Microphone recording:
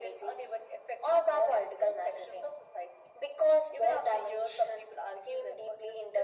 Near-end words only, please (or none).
none